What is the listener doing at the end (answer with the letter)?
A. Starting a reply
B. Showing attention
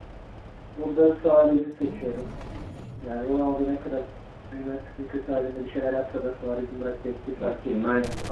A